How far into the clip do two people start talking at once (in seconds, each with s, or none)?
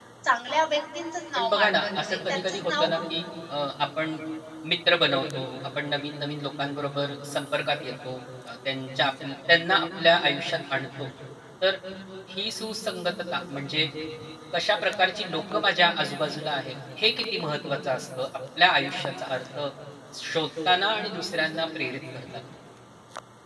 1.4 s